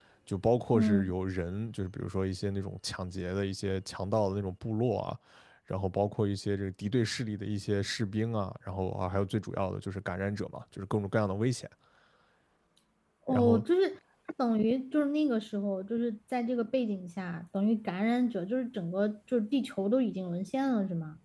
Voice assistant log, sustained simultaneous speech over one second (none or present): none